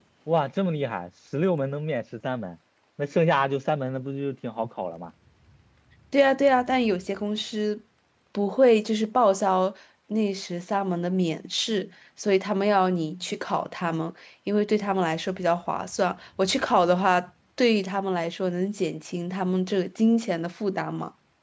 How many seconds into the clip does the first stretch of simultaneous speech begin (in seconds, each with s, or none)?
none